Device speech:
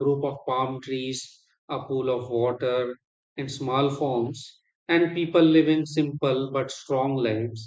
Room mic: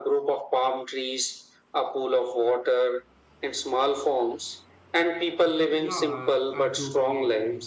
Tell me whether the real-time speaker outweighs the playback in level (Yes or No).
No